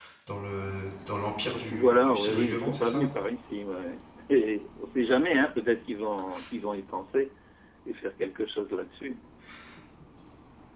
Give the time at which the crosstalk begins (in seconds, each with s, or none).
1.7 s